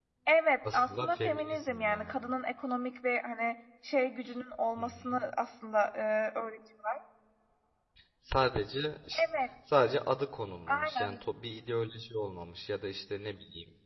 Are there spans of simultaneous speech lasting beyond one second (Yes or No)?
Yes